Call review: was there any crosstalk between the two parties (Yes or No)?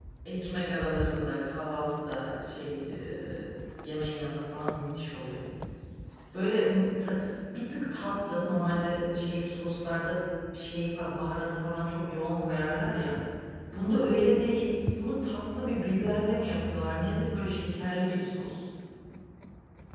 No